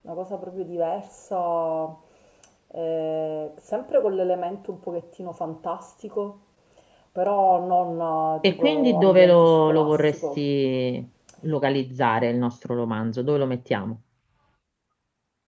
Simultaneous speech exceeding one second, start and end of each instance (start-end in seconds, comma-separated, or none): 8.4-10.4